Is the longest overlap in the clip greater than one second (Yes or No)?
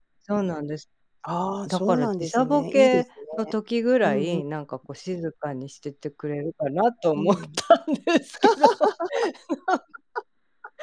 Yes